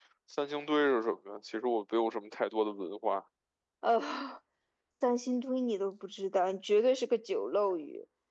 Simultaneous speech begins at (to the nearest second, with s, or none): none